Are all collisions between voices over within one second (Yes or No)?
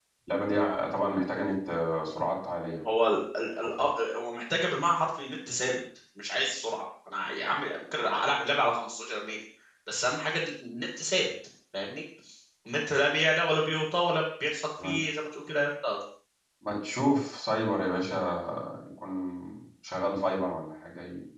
Yes